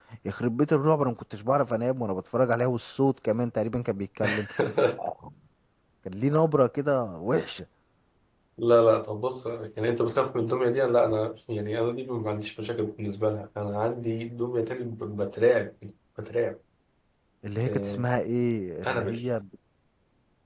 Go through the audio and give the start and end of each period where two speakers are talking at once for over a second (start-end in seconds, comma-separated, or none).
none